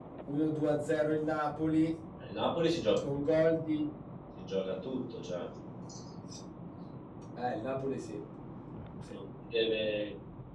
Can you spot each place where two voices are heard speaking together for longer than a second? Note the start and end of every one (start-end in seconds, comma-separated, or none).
none